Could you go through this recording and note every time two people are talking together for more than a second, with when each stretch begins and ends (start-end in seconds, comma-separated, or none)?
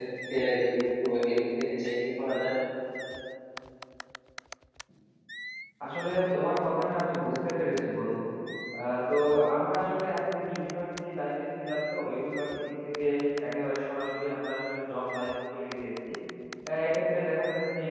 none